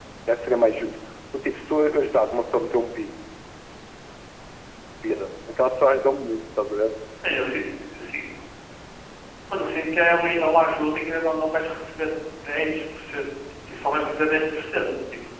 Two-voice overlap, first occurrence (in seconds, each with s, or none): none